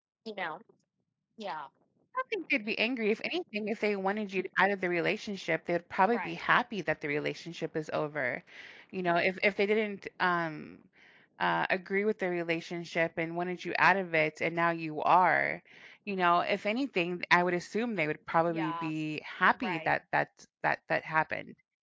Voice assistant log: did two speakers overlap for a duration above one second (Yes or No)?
No